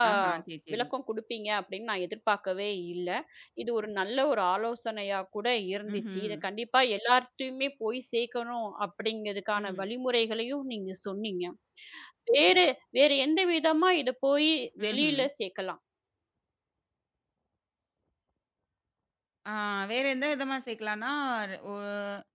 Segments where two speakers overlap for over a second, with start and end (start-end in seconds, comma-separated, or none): none